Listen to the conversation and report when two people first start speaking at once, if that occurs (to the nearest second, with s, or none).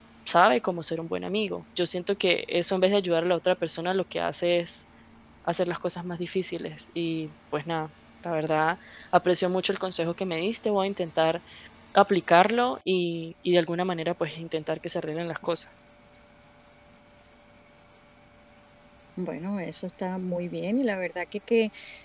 none